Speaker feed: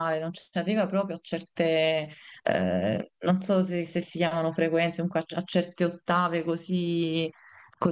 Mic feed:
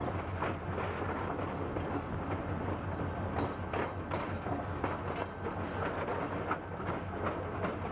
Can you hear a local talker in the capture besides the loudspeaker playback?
No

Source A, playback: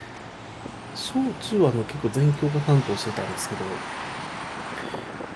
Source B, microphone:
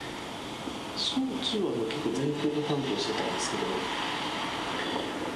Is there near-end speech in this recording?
No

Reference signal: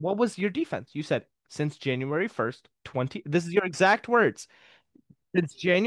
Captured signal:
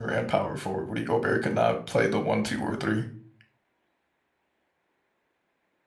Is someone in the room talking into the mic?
Yes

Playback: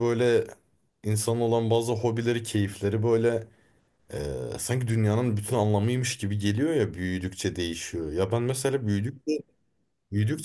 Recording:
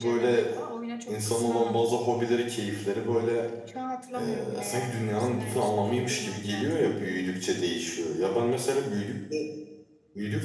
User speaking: Yes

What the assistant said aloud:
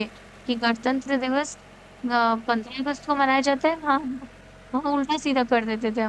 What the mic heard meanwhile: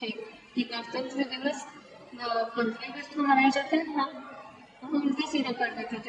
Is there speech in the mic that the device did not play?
No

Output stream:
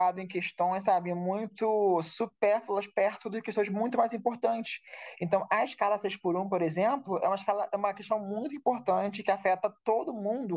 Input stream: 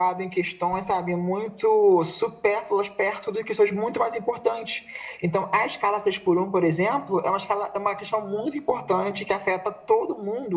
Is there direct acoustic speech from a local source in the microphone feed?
No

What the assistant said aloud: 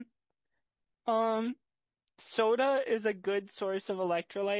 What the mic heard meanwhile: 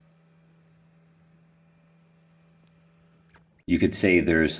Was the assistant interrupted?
Yes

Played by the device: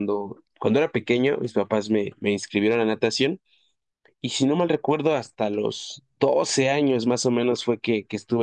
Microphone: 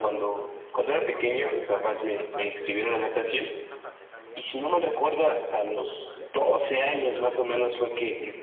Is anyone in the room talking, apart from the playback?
Yes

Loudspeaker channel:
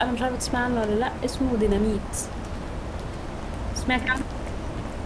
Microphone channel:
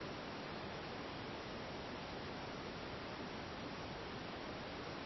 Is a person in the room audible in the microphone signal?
No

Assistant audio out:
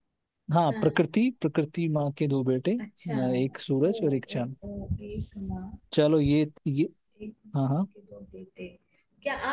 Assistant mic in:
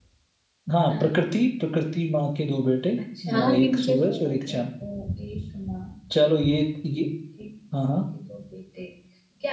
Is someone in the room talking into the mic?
Yes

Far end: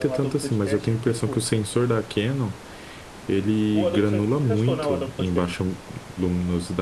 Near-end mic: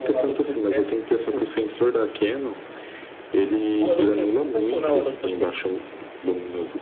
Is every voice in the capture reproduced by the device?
Yes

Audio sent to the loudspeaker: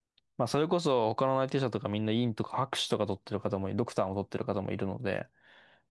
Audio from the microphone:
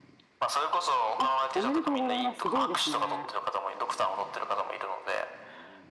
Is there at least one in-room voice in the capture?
Yes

